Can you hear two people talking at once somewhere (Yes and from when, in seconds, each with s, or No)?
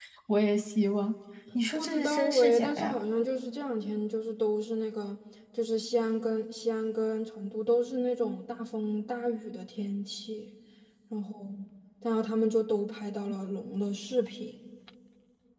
Yes, from 1.8 s